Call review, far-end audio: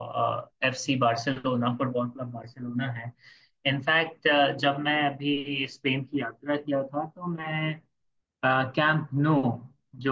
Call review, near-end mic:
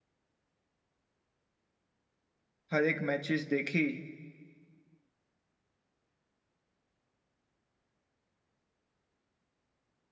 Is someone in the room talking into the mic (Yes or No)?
Yes